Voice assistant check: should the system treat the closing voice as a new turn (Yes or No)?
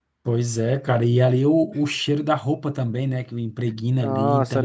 Yes